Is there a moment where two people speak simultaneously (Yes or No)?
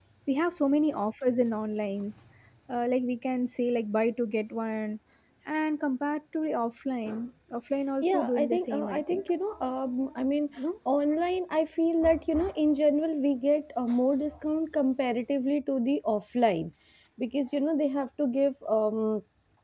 Yes